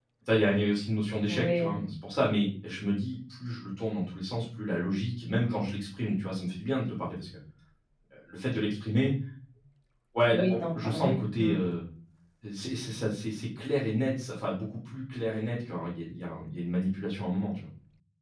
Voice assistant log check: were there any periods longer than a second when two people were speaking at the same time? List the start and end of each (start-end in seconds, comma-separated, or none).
10.3-11.6